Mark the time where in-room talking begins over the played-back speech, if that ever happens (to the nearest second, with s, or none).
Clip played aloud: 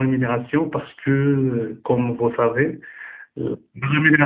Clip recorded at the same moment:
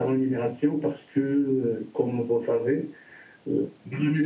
none